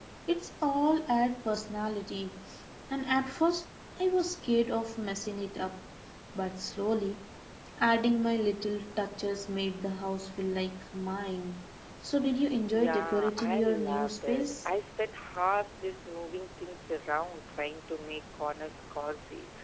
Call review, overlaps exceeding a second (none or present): present